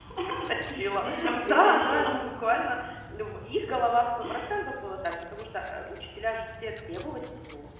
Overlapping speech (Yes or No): Yes